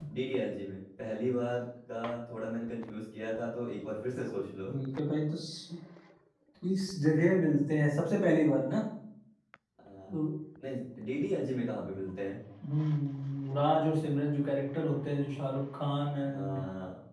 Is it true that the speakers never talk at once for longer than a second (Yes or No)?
Yes